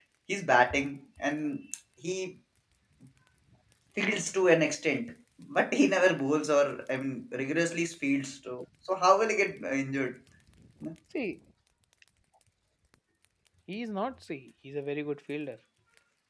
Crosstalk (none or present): none